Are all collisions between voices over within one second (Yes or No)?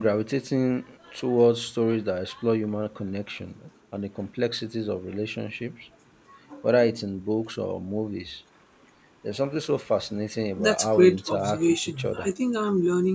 No